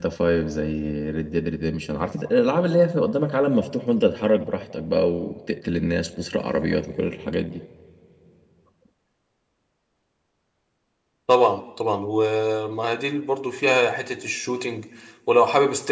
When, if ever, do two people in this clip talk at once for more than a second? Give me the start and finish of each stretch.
none

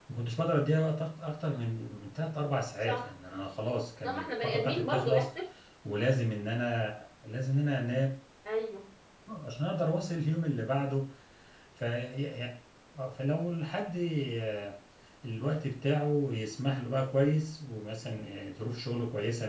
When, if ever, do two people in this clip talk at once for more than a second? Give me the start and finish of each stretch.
4.0-5.3

